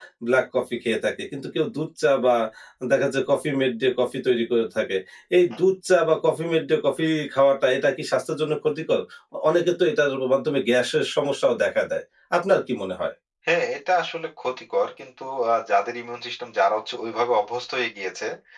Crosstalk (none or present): none